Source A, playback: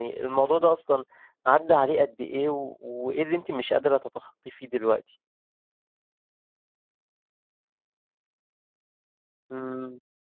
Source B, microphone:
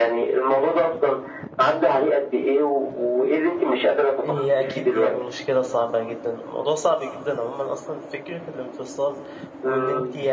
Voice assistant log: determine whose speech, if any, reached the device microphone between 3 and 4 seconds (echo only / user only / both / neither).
echo only